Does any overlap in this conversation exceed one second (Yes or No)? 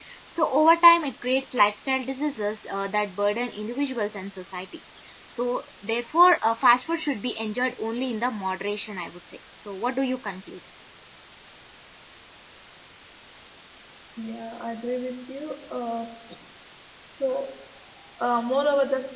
No